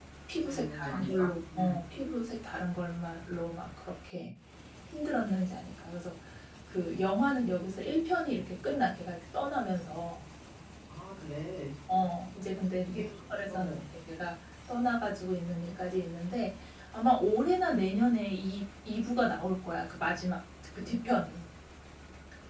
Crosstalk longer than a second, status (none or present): present